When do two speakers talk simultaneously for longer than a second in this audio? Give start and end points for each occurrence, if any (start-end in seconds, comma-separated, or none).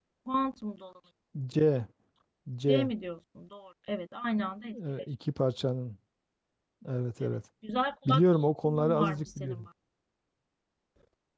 8.1-9.7